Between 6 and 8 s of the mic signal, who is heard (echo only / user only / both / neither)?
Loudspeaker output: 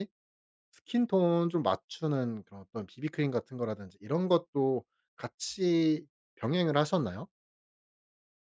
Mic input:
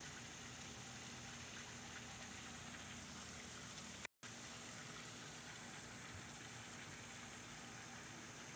neither